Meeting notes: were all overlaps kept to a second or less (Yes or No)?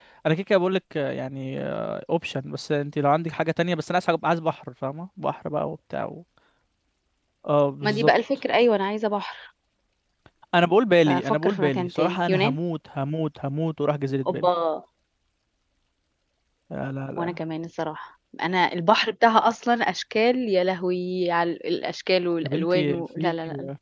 No